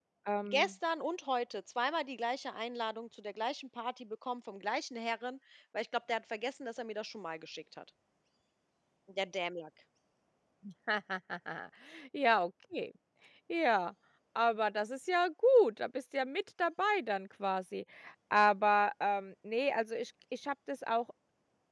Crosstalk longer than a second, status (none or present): none